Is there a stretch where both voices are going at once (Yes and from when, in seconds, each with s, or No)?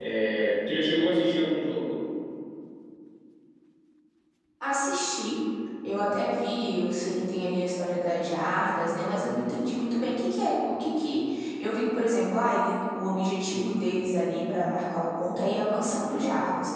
No